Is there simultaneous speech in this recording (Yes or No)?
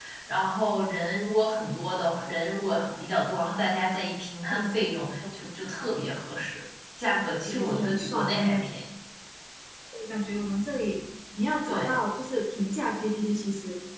Yes